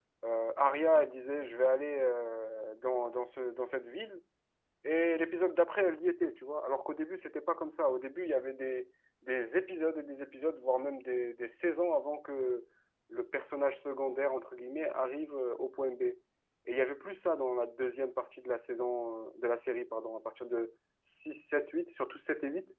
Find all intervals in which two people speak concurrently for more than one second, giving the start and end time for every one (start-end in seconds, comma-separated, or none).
none